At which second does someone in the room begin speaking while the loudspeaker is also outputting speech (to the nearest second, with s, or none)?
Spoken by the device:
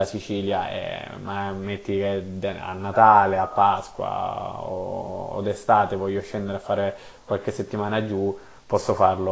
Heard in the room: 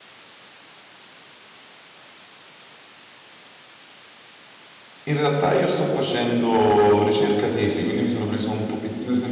5 s